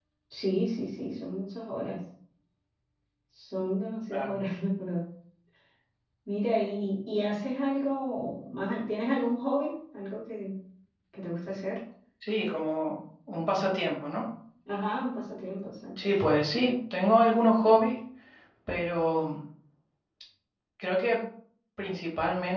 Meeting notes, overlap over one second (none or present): none